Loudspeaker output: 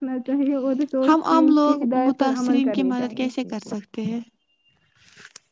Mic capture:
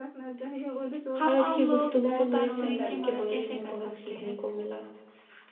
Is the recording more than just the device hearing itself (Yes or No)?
Yes